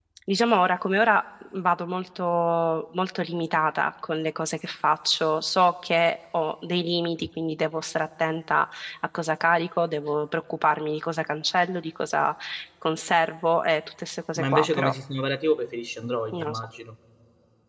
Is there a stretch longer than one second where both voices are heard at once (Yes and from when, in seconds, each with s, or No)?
No